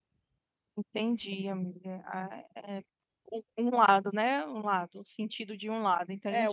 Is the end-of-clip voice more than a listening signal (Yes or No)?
Yes